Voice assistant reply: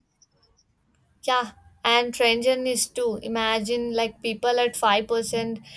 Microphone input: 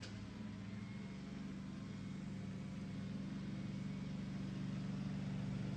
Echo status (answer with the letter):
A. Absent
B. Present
A